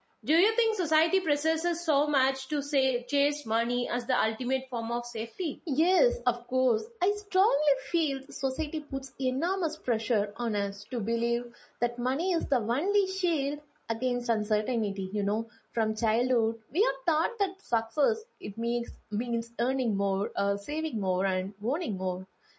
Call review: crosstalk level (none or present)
none